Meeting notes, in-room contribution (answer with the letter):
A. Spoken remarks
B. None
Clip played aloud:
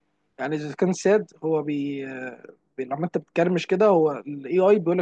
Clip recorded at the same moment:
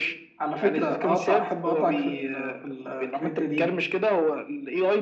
A